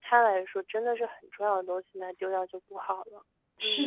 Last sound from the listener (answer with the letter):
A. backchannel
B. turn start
B